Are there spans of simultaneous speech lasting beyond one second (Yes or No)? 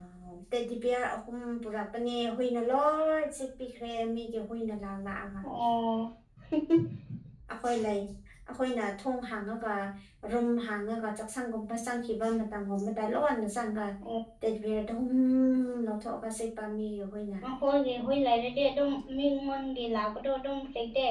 No